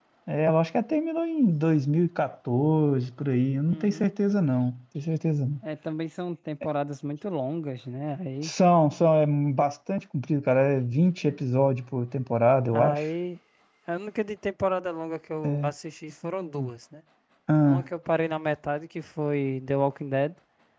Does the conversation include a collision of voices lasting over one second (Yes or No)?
No